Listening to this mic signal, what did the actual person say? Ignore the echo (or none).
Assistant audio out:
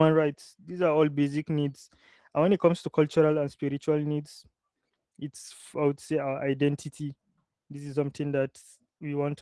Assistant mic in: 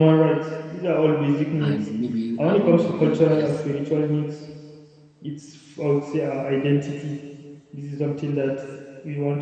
and maybe having a good health